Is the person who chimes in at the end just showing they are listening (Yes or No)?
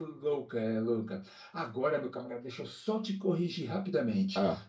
Yes